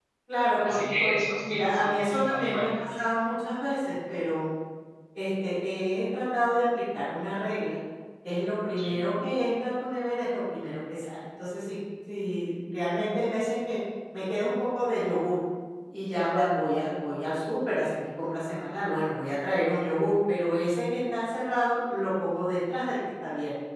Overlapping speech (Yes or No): Yes